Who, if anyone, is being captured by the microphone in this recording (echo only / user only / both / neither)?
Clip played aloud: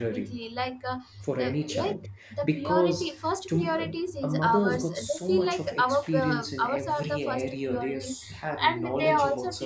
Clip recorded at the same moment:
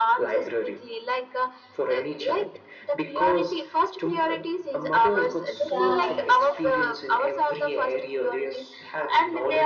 both